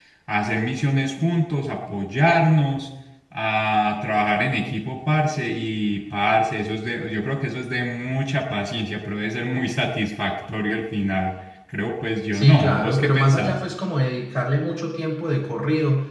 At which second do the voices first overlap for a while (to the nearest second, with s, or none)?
12 s